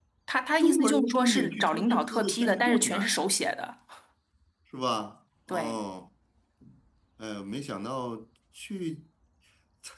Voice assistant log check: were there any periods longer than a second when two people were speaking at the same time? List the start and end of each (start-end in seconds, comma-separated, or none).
0.6-3.1